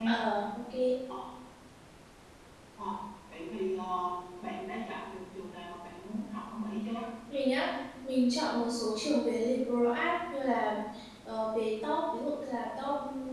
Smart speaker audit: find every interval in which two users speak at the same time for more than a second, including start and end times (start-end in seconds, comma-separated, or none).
none